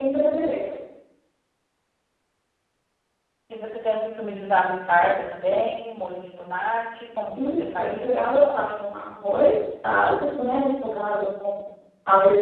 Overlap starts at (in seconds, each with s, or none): 7.3 s